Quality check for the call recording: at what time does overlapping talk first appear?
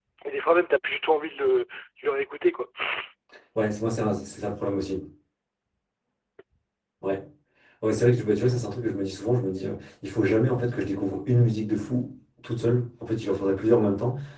none

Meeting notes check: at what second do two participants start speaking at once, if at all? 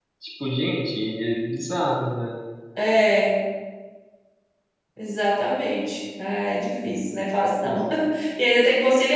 none

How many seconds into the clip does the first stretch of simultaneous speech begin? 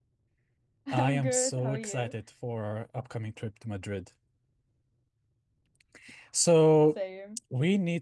1 s

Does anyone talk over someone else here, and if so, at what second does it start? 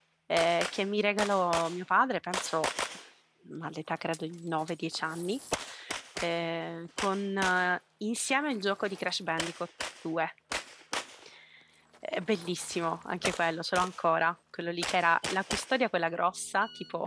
none

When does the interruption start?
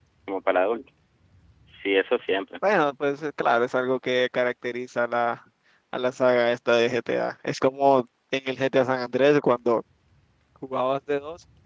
none

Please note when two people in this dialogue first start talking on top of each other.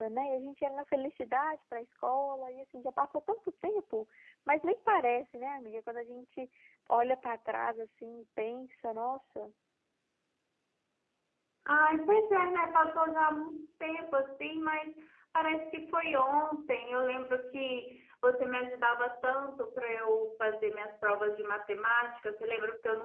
none

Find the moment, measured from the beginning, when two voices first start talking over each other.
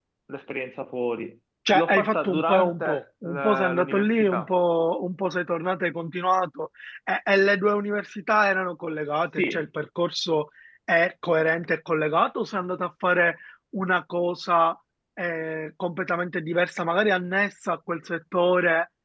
2 s

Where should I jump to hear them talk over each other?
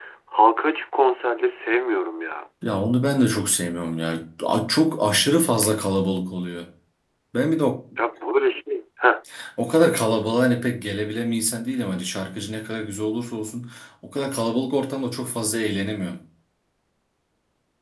none

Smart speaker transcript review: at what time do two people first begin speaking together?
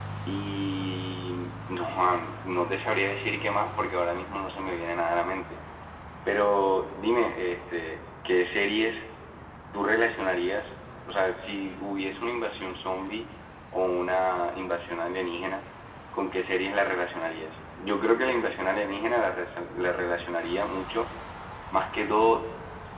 none

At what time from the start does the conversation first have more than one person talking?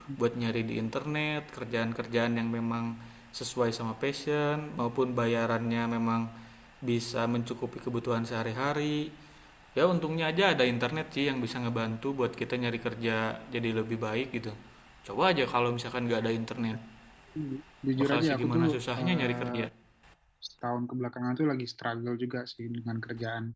18 s

